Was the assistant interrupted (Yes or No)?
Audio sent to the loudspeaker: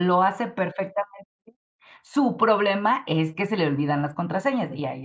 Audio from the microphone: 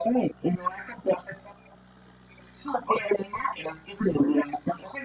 No